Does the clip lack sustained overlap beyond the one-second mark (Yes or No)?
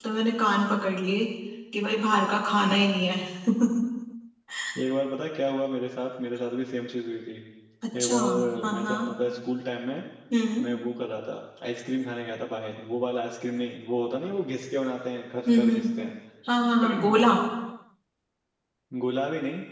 Yes